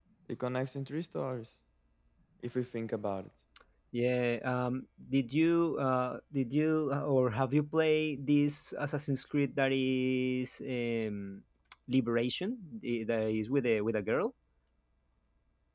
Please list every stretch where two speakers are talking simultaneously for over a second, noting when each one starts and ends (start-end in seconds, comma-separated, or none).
none